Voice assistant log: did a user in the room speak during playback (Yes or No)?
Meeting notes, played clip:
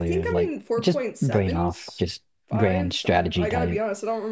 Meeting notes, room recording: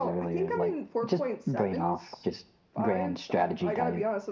No